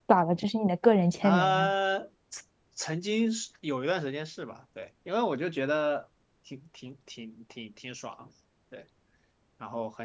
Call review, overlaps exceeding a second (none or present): none